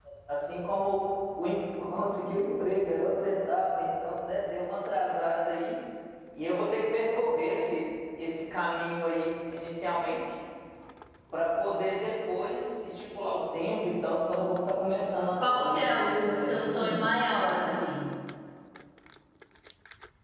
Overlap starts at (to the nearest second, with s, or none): 15 s